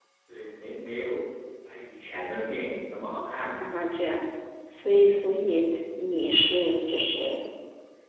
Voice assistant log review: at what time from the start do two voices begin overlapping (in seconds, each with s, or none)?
none